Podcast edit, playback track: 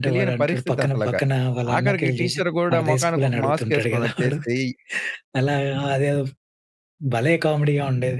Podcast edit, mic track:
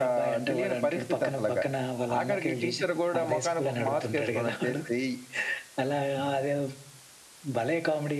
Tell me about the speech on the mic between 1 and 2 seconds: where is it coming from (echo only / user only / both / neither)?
echo only